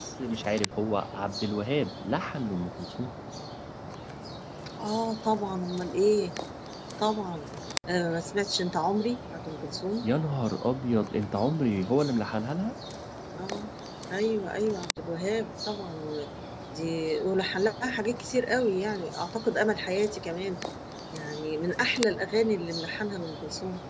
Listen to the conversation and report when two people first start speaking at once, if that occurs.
none

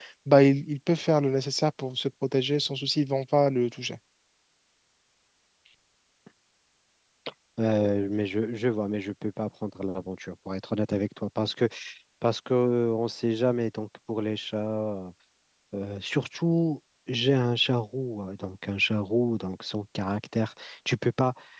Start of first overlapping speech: none

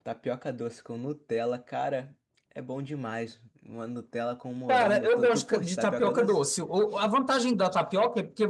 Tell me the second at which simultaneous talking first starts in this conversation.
4.7 s

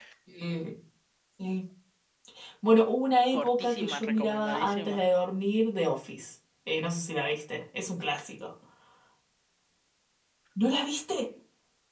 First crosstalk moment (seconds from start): 3.3 s

